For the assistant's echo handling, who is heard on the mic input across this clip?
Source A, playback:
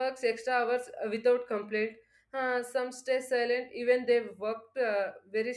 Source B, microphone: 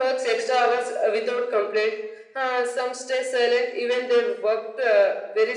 echo only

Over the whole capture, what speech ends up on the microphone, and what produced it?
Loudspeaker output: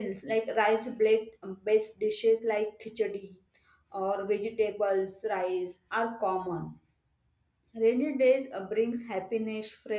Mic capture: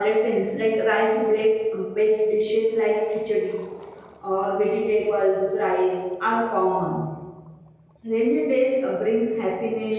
echo only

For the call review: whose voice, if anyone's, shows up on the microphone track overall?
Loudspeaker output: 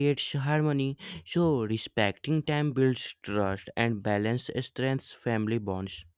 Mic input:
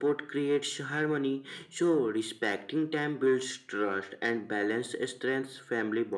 echo only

